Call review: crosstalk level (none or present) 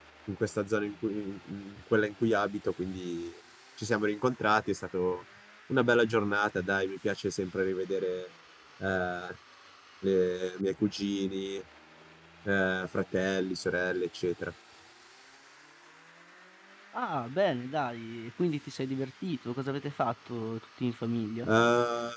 none